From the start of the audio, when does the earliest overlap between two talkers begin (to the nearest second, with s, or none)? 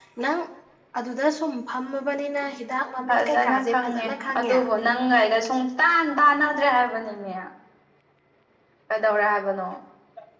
3 s